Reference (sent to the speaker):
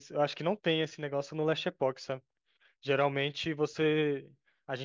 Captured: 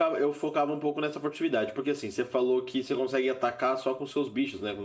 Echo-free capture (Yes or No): Yes